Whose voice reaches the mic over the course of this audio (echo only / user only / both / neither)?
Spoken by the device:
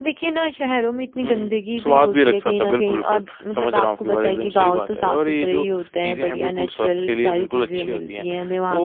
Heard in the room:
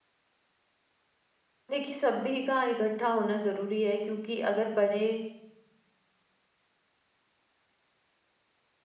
user only